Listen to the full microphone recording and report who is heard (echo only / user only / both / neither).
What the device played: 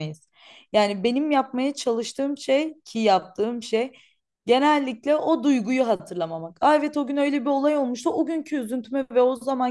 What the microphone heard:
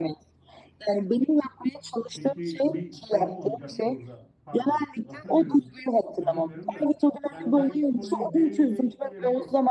both